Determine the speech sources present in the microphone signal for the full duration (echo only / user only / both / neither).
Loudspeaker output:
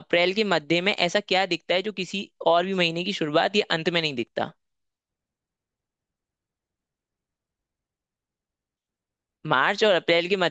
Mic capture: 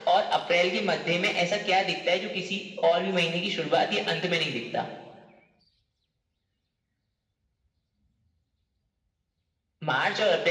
echo only